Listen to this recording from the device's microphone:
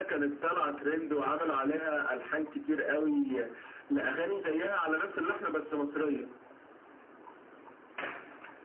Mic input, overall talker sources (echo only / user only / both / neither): echo only